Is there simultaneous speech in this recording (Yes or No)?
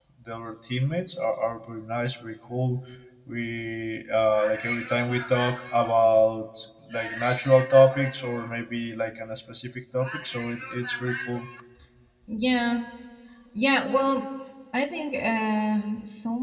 No